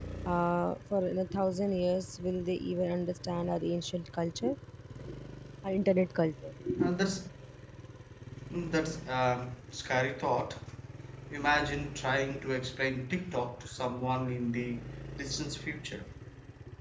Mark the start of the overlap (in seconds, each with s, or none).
none